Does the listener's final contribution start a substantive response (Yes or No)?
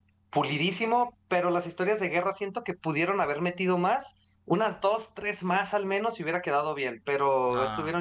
Yes